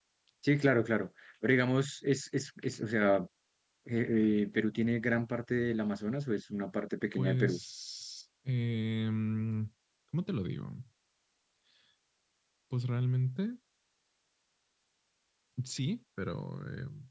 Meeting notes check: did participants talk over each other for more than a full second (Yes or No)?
No